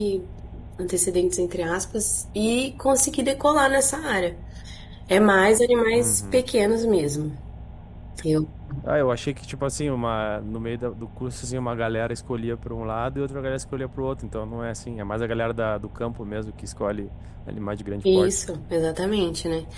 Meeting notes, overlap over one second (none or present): none